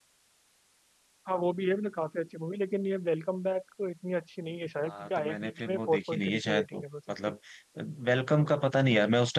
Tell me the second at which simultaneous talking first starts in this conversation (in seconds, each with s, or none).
4.9 s